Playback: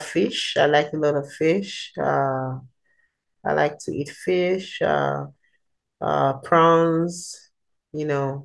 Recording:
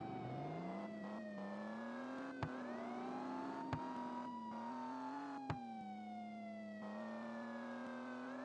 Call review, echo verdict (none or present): none